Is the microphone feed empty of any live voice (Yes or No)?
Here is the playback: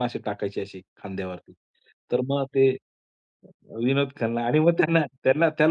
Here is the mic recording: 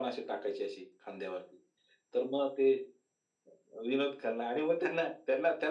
Yes